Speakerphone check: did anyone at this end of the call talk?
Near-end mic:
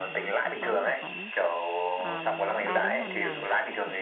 Yes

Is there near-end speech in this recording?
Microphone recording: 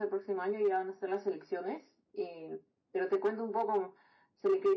No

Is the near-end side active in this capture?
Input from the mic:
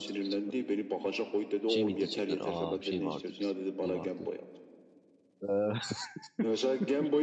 Yes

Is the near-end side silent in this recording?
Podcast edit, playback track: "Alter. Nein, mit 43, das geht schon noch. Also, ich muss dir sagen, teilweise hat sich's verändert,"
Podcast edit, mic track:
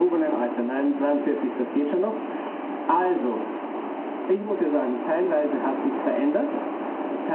Yes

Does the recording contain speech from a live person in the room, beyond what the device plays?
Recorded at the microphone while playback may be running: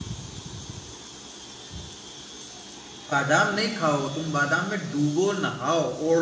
Yes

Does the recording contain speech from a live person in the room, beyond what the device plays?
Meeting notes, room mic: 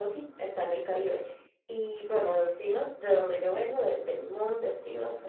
No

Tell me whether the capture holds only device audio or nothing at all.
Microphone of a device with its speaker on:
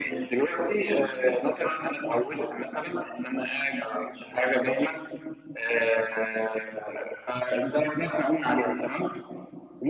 Yes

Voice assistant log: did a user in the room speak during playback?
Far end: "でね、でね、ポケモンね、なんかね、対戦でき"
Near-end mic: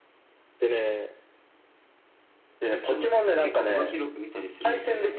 Yes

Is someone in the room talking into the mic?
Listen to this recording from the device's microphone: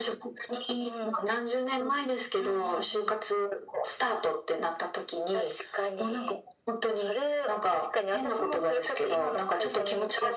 No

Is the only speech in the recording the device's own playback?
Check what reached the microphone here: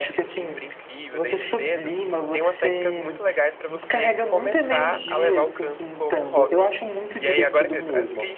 No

